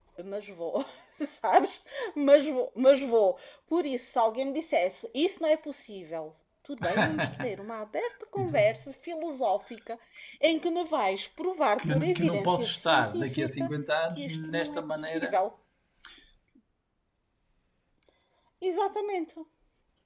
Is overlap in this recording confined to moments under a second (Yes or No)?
No